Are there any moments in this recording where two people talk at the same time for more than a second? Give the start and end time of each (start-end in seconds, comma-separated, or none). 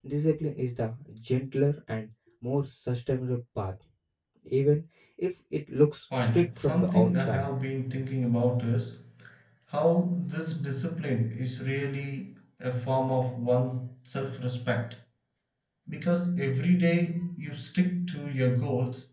6.2-7.4